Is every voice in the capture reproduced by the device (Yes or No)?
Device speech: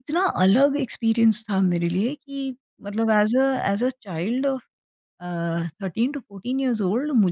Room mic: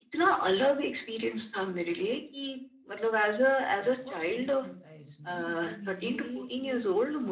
No